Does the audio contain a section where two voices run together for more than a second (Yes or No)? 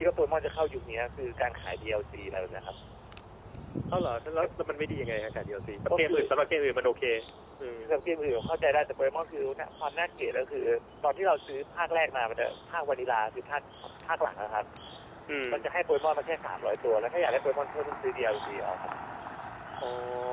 No